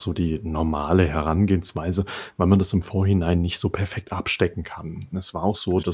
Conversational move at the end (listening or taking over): listening